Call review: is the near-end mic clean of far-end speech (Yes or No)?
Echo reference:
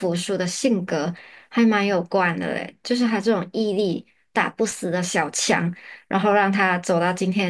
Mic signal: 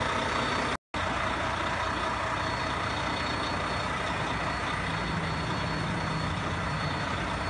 Yes